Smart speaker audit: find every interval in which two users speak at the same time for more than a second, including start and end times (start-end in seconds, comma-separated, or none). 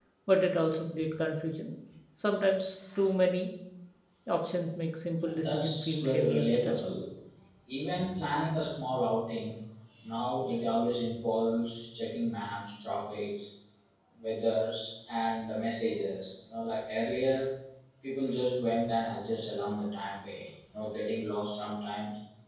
5.3-6.8